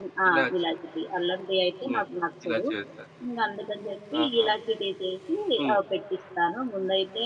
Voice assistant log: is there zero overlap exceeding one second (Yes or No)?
Yes